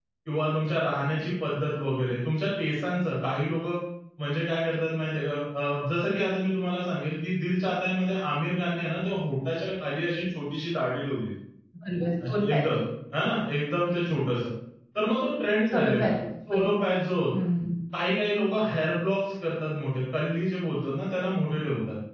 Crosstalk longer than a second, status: none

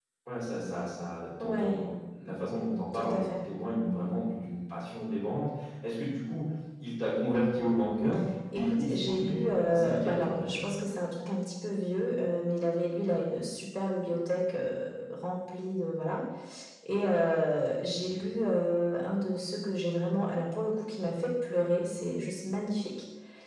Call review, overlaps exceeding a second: present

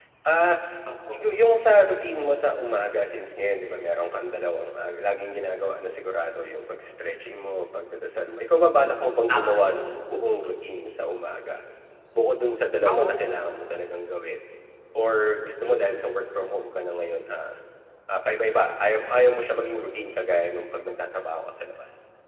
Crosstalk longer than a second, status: none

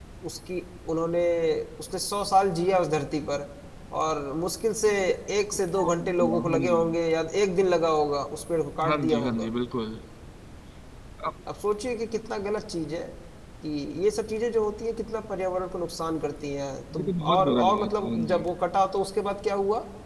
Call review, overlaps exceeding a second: present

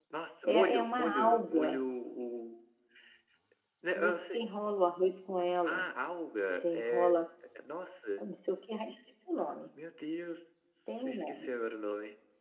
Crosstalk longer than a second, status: present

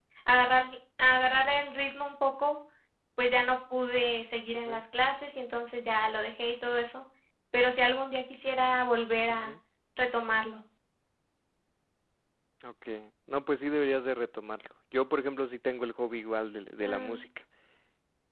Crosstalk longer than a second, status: none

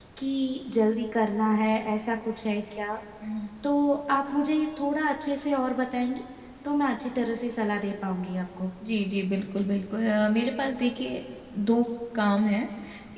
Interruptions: none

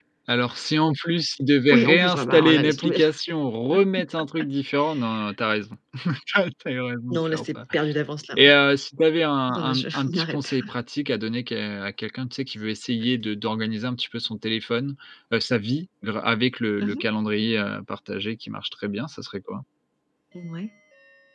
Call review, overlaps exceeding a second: present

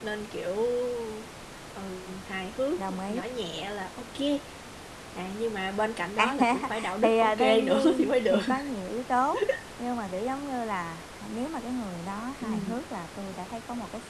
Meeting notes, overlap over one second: present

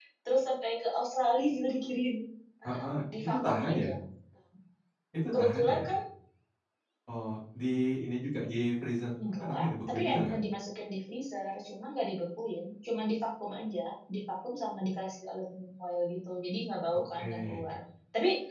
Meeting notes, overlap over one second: present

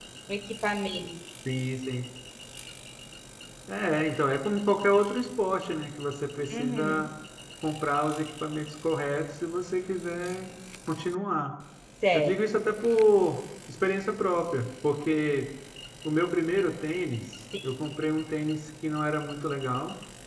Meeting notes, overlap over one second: none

